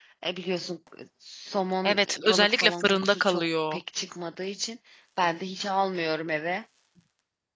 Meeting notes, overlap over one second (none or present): present